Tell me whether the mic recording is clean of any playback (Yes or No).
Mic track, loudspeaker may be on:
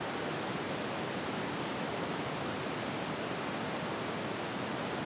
Yes